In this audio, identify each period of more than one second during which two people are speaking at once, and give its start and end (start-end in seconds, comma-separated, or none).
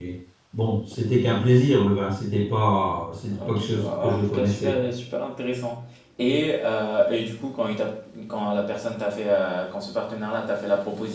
3.4-4.8